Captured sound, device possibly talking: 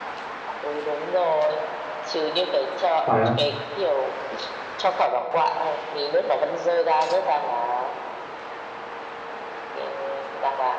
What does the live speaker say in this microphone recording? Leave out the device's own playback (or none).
phải không